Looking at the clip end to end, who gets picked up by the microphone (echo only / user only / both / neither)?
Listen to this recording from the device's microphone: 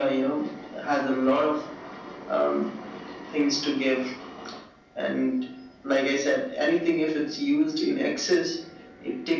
echo only